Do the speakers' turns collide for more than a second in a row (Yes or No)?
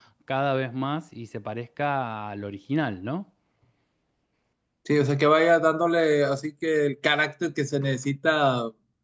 No